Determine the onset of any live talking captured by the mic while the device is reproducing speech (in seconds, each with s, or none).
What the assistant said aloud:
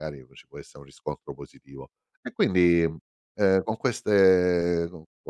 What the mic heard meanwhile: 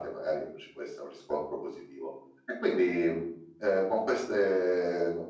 none